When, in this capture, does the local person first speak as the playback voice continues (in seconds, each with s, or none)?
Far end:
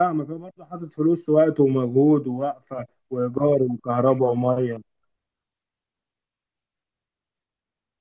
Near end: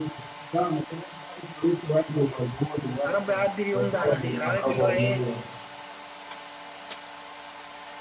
3.0 s